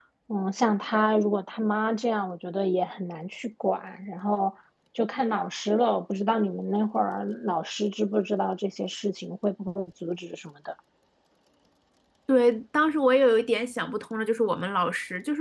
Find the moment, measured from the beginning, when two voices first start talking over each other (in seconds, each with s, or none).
none